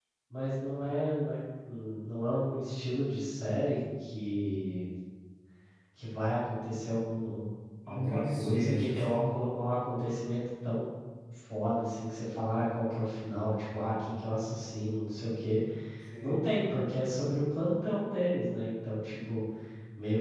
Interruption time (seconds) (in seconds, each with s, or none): 7.8 s